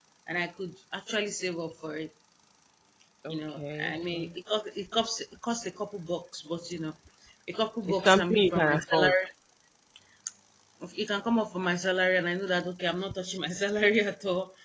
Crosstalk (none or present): present